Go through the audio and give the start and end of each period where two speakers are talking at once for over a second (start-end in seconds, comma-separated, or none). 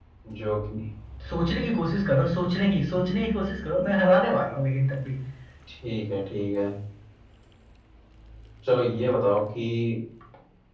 none